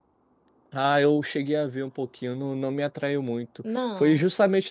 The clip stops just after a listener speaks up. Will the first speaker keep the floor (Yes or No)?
Yes